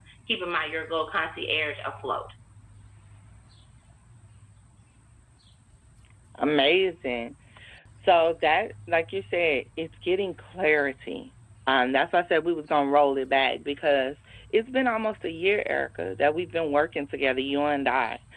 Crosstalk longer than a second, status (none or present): none